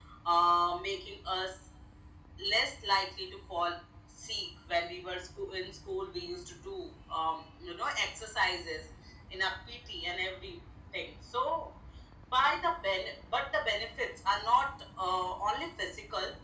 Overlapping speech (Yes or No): No